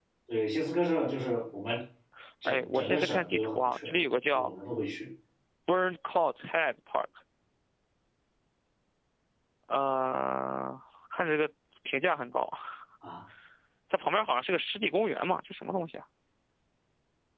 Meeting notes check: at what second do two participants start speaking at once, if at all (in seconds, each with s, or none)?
2.5 s